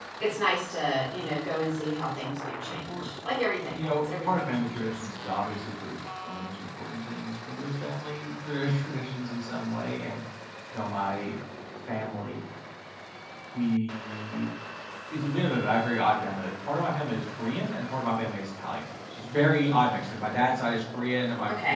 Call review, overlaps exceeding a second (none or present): present